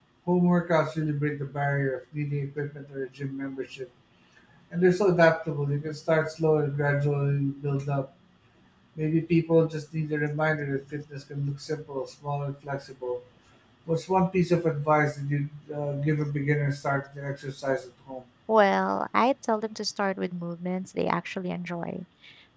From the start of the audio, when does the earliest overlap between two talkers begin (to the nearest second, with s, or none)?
none